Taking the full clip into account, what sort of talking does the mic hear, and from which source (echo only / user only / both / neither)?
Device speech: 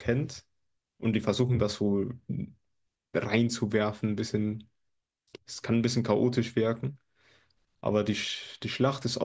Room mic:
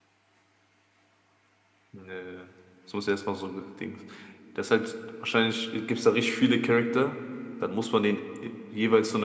user only